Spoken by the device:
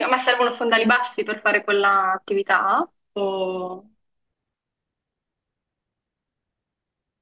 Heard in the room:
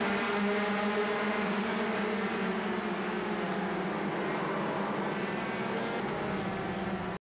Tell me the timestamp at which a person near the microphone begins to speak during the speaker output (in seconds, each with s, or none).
none